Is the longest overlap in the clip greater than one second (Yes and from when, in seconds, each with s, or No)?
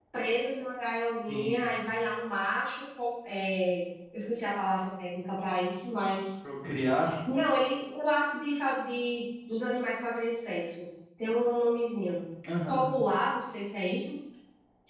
No